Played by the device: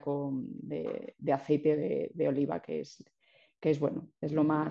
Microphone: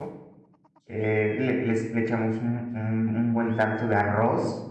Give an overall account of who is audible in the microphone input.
user only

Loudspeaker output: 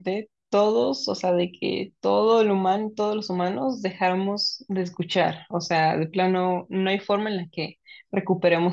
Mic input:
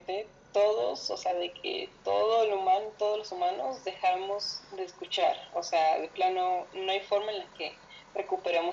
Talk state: echo only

